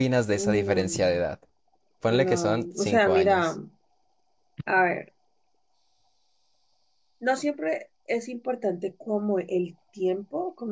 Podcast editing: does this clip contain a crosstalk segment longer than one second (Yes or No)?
Yes